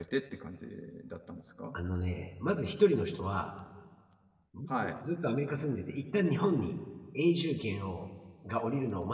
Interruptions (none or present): none